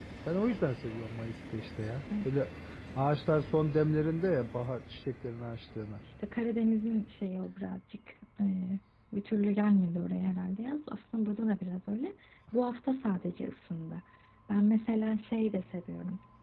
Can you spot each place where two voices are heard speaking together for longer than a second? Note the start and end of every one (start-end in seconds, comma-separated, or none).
none